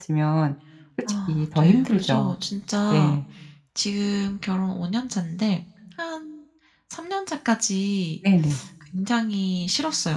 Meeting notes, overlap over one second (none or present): present